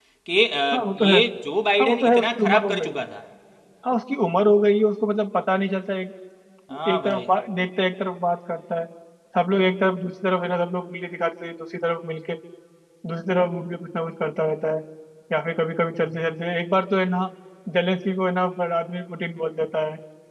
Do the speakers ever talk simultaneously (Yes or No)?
Yes